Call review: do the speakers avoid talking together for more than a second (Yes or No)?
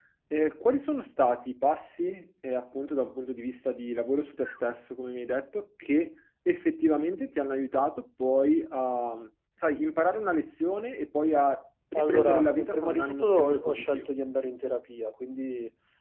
No